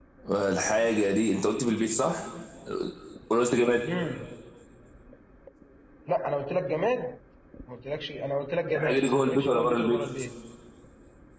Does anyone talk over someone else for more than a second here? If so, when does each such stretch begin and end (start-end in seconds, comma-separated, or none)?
8.8-10.0